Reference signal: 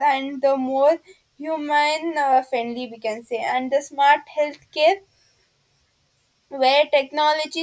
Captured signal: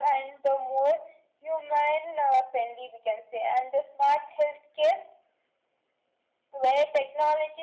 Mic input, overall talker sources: echo only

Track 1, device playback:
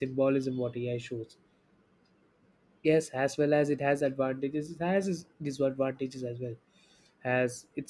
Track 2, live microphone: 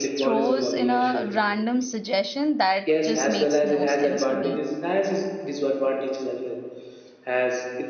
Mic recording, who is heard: both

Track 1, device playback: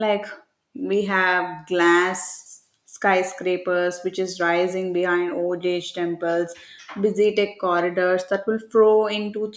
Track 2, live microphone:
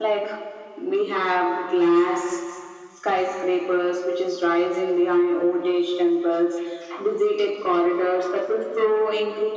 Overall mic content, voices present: echo only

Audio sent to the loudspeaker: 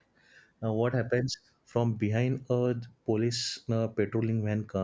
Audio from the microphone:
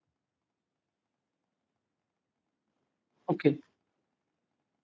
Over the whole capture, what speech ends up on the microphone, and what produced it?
user only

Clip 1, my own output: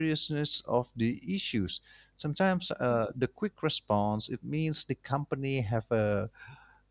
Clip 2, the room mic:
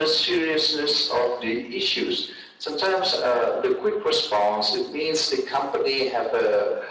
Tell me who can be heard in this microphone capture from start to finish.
echo only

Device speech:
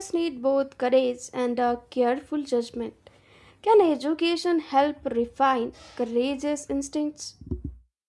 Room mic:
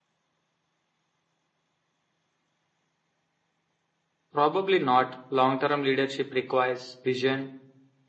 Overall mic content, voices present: user only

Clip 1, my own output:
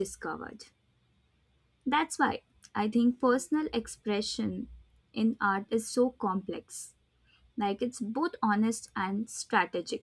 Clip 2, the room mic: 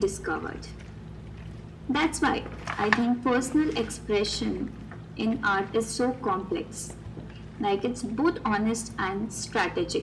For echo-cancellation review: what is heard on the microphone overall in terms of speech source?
echo only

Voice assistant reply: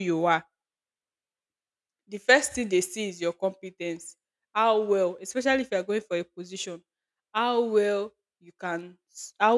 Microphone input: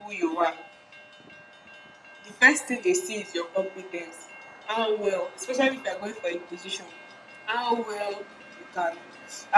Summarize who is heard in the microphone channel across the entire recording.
echo only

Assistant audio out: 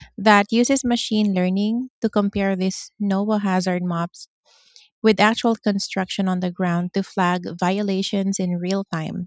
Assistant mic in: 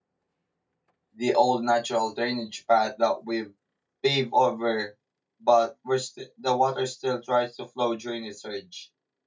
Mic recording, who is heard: user only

